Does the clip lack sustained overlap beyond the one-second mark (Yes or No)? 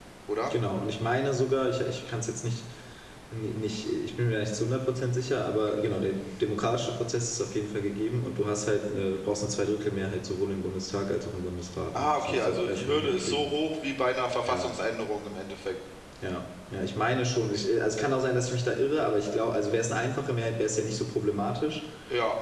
No